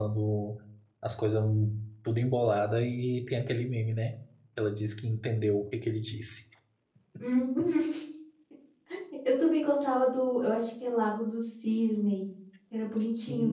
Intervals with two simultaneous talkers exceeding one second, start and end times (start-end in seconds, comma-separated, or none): none